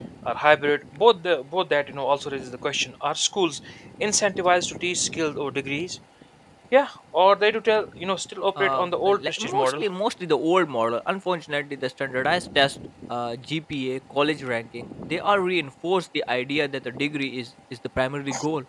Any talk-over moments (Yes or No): Yes